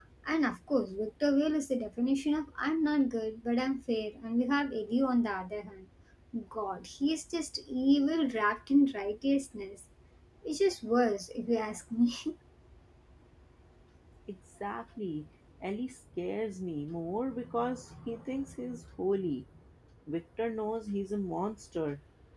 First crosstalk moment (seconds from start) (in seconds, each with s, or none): none